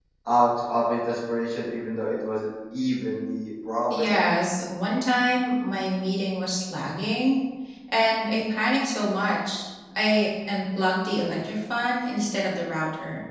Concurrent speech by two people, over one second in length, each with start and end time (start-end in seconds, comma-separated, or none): none